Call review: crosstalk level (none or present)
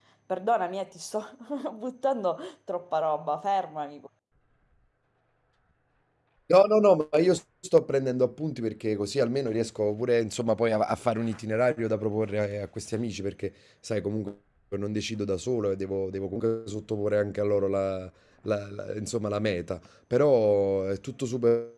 none